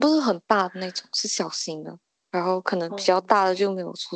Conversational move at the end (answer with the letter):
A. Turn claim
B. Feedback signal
B